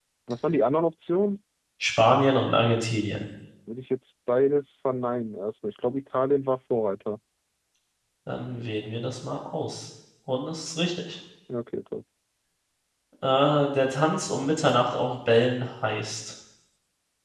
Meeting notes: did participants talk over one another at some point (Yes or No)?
No